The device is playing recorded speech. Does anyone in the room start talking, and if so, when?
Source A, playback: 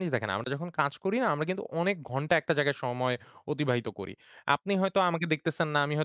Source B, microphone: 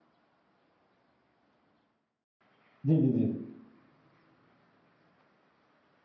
2.9 s

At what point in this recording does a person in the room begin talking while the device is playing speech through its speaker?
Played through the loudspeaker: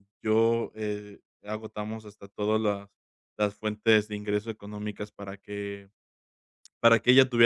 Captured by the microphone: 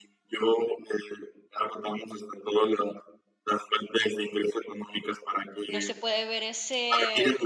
5.7 s

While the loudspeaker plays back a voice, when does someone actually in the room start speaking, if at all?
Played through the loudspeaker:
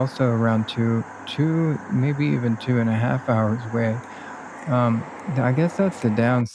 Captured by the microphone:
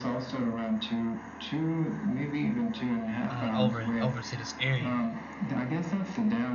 3.3 s

